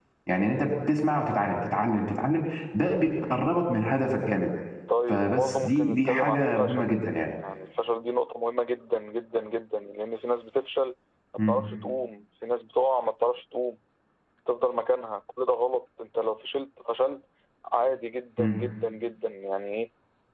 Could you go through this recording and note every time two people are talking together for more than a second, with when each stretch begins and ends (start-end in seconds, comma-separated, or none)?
5.1-6.9